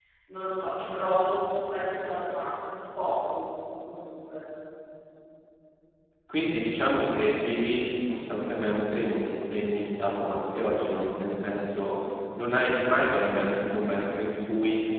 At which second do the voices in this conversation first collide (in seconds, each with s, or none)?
none